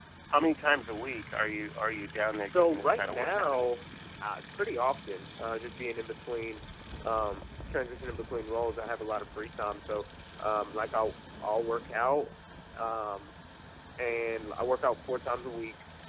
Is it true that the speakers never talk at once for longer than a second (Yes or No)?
No